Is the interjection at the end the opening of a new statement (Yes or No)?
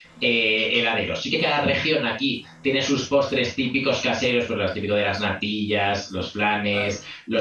No